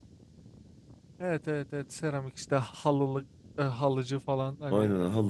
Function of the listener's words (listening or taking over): taking over